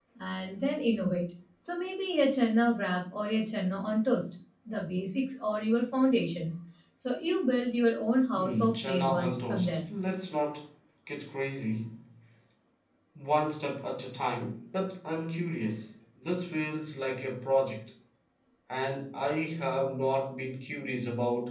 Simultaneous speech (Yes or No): Yes